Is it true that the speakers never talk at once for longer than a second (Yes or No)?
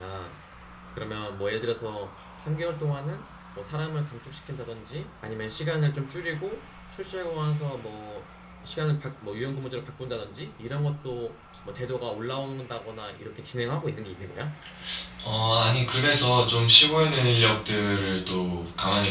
Yes